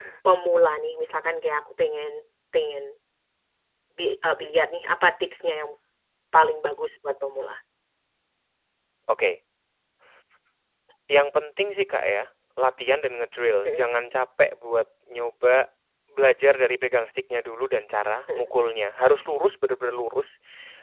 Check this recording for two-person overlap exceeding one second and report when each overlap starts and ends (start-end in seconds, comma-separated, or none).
none